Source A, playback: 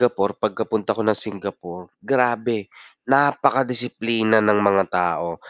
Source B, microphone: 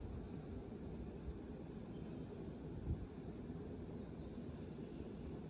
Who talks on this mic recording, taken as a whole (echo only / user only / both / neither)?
neither